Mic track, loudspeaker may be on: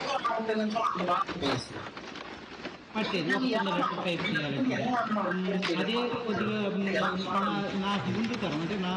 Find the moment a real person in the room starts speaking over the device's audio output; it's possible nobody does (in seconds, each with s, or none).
3.0 s